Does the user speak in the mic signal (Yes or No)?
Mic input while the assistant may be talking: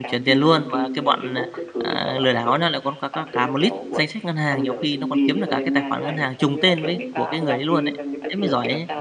Yes